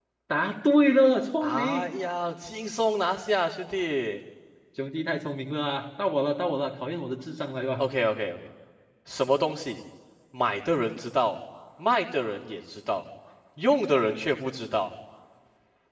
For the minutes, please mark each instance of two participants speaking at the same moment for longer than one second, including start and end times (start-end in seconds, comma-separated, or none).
none